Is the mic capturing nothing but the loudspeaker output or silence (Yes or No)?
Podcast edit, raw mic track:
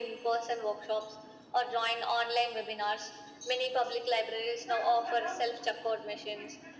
Yes